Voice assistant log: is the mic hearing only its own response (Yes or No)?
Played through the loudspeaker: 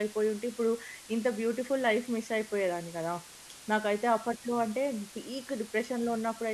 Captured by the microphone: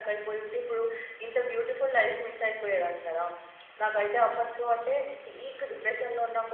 Yes